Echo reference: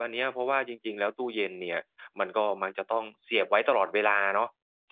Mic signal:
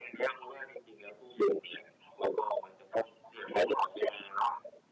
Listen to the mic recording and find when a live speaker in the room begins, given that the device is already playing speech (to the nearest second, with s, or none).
none